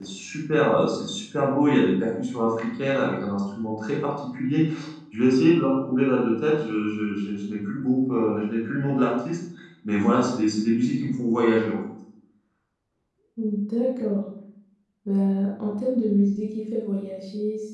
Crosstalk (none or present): none